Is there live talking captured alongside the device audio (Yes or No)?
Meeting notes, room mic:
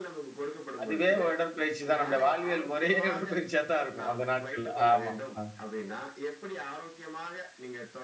Yes